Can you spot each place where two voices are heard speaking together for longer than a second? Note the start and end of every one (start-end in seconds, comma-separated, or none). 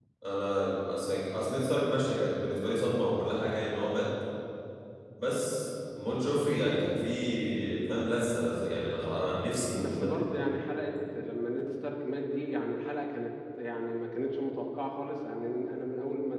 none